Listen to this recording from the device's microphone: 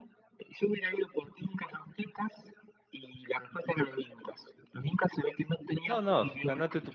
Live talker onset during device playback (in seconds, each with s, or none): 5.8 s